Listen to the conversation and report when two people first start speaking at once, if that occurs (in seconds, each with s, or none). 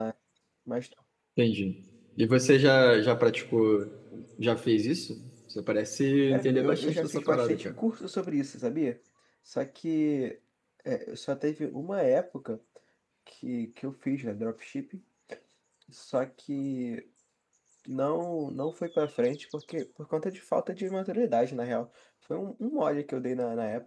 6.3 s